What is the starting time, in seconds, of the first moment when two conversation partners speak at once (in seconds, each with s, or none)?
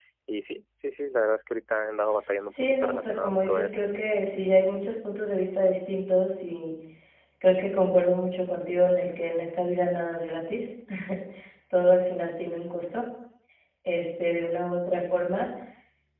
2.5 s